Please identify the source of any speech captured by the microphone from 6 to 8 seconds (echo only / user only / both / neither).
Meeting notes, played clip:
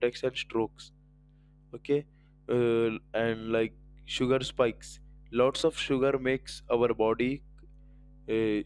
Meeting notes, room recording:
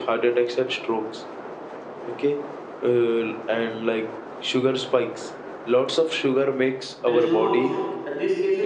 both